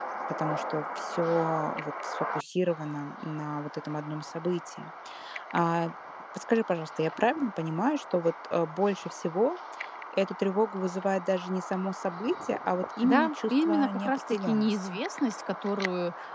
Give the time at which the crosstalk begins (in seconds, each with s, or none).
13.0 s